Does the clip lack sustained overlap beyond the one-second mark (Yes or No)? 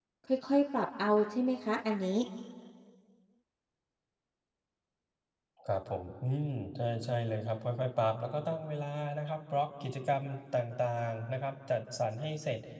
Yes